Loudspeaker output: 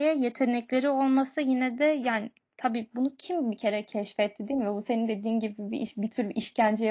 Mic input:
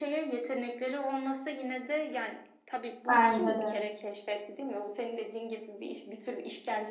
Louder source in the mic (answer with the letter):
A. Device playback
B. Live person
B